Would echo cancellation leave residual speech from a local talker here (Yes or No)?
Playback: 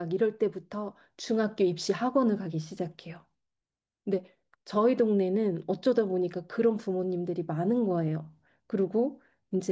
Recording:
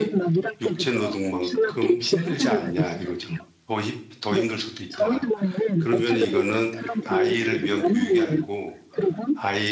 Yes